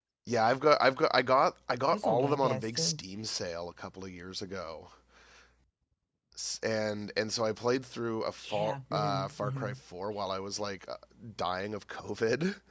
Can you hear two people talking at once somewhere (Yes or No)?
Yes